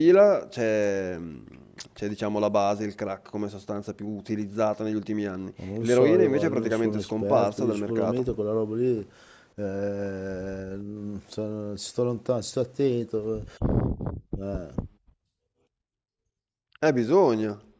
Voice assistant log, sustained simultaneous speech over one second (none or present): present